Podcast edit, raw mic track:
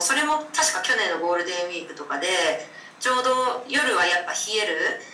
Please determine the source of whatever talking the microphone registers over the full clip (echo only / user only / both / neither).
echo only